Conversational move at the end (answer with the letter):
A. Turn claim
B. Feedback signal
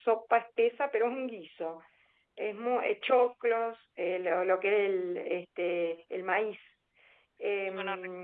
B